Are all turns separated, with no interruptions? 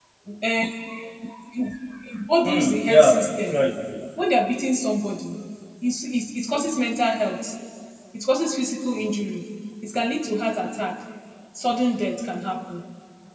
No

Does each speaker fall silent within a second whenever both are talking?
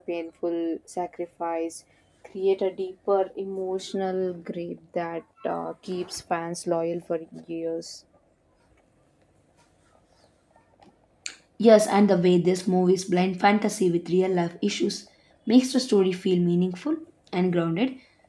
Yes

